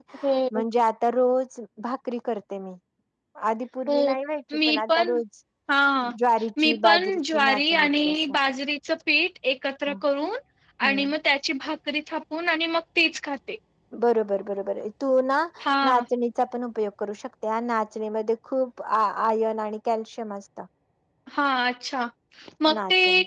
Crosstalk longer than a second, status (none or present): present